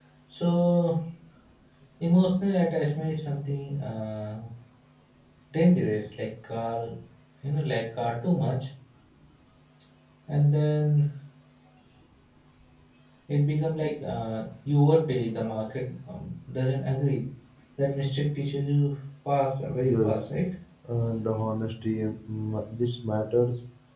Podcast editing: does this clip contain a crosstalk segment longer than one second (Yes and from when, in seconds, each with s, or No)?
No